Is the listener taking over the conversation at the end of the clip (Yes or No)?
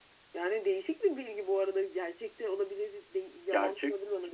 Yes